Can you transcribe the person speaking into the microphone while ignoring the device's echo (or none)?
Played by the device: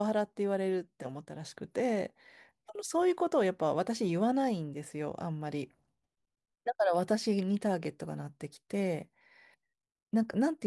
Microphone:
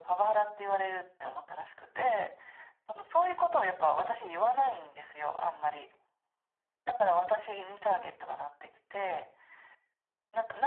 none